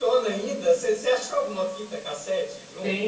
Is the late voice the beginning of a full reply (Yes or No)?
Yes